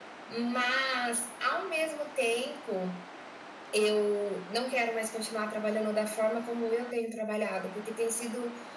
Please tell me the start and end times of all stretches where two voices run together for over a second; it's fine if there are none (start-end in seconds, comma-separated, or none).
none